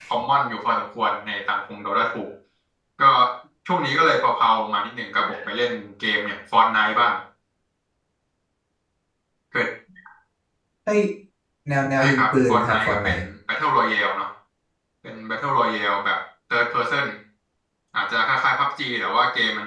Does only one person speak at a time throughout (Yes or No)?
No